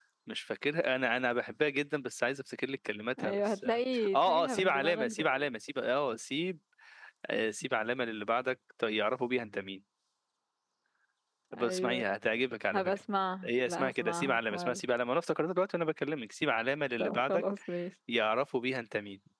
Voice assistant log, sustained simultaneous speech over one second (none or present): present